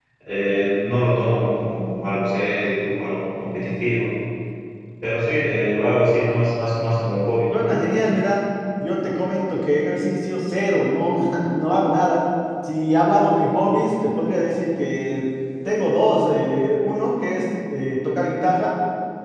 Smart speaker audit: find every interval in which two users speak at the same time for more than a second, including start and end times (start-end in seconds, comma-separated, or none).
none